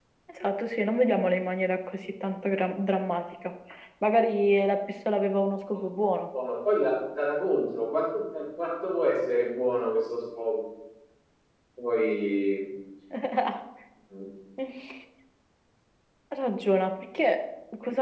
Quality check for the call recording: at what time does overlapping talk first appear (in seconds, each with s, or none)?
none